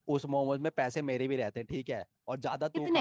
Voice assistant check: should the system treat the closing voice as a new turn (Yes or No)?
No